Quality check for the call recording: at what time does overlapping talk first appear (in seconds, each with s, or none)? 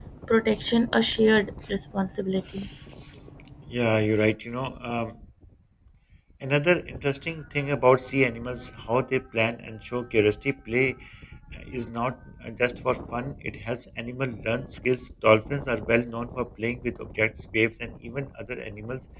none